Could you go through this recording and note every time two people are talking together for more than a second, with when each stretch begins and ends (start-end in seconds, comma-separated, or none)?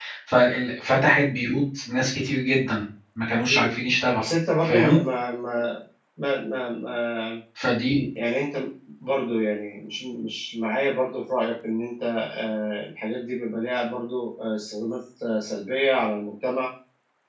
none